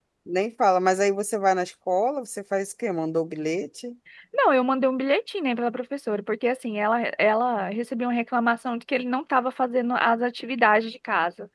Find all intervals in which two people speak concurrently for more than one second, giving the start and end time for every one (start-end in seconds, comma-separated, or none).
none